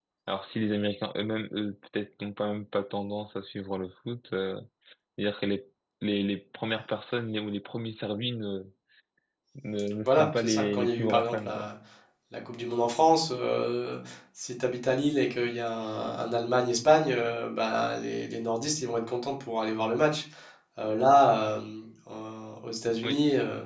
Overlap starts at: 10.1 s

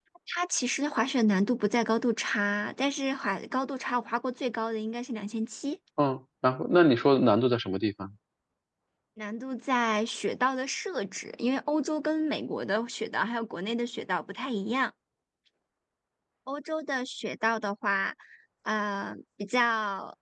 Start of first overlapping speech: none

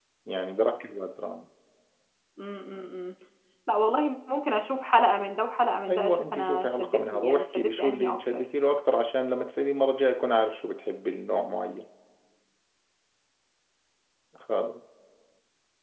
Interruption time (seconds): 5.9 s

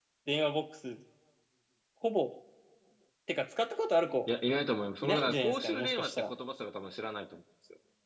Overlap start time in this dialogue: 5.0 s

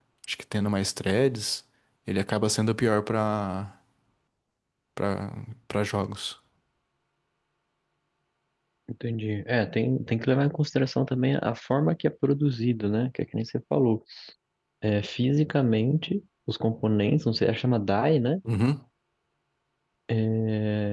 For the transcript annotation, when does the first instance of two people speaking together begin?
none

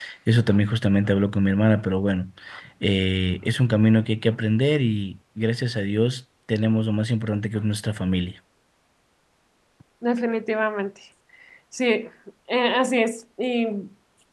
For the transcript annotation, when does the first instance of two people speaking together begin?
none

